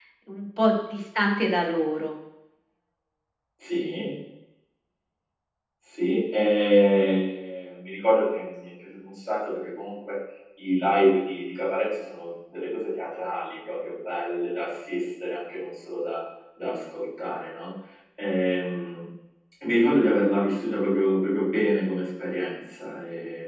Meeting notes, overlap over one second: none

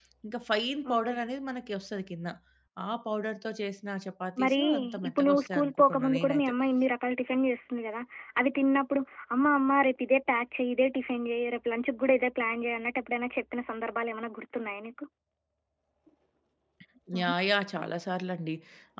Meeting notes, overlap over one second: present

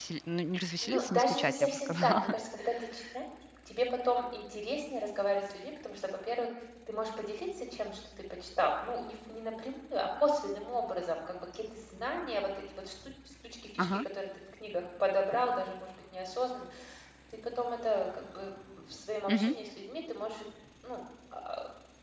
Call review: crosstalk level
present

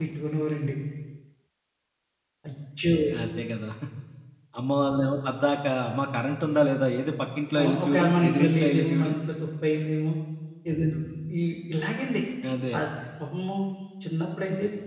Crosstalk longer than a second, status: present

